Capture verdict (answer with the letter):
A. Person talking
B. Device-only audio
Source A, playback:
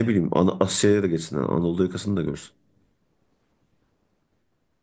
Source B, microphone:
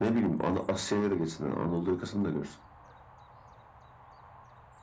B